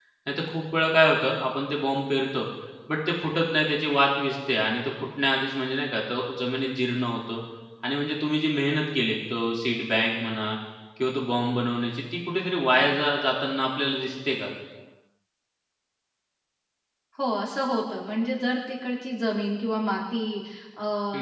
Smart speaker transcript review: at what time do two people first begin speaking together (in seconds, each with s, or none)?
none